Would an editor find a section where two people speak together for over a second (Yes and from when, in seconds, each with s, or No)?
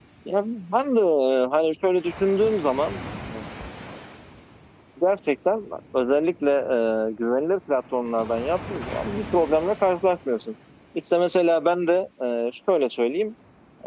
No